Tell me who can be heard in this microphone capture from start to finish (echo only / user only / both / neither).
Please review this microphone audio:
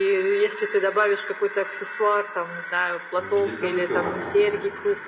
both